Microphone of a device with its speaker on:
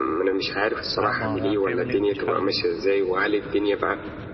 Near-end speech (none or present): present